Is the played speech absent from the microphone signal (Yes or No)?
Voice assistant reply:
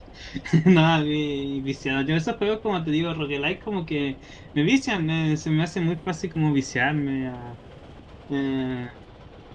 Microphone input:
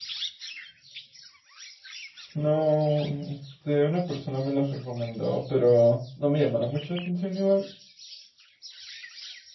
Yes